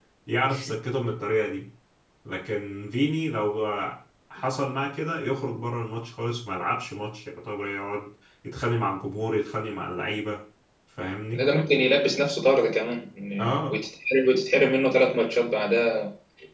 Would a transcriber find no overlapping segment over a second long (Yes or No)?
Yes